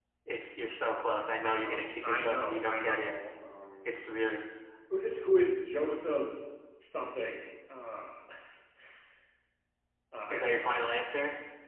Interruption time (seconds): 1.4 s

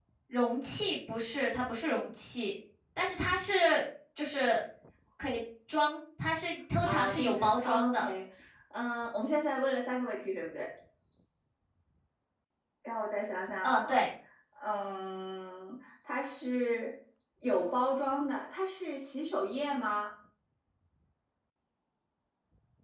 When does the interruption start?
6.8 s

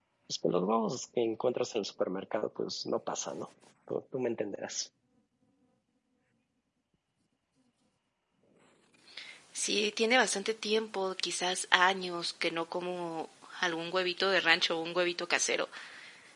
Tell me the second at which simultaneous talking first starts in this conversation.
none

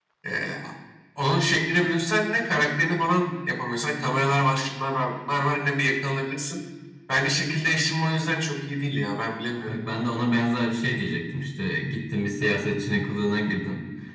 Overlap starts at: none

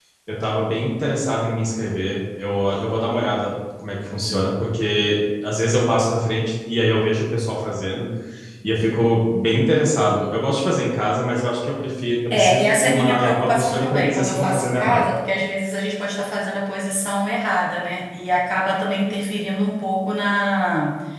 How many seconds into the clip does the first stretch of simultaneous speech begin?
12.3 s

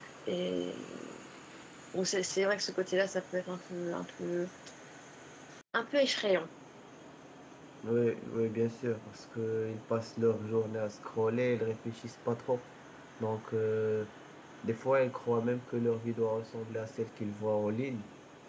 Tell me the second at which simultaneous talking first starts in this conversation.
none

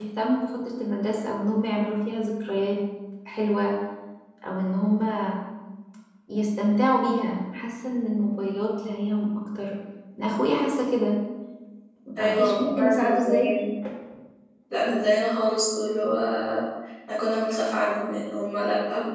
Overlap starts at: 12.2 s

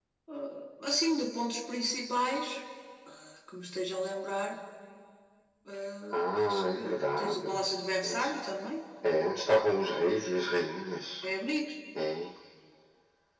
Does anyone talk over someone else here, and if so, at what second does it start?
6.1 s

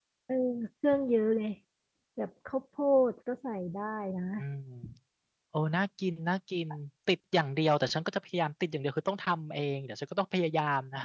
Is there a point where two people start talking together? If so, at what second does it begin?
none

